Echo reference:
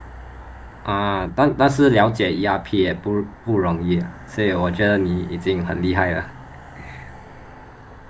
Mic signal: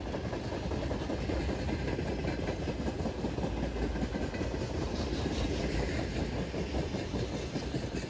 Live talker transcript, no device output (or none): none